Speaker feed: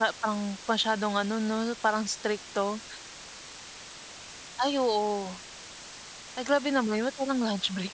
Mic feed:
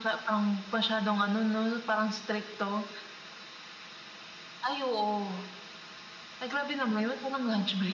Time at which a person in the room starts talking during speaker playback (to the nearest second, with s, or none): none